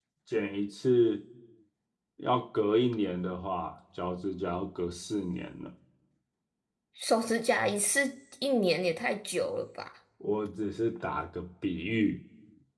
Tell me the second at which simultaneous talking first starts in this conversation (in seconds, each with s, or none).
none